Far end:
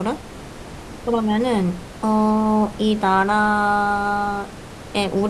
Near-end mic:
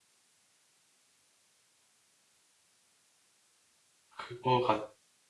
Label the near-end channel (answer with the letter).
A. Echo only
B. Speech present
B